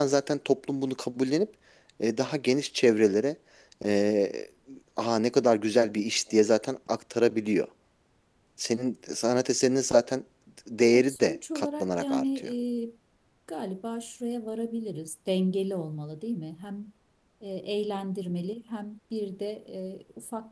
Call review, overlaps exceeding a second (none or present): present